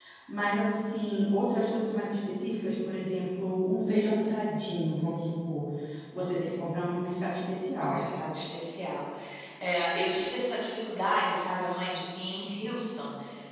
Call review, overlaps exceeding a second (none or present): none